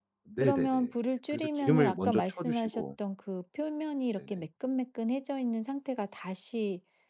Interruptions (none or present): present